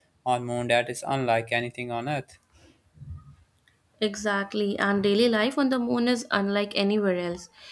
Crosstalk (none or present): none